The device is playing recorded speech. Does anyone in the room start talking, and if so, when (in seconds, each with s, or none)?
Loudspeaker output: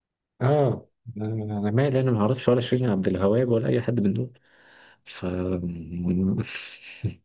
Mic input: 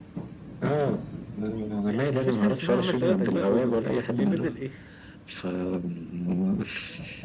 1.9 s